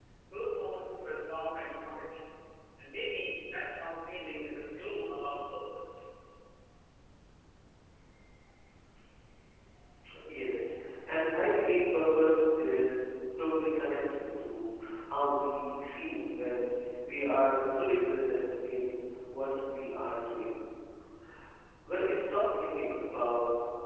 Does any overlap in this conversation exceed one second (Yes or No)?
No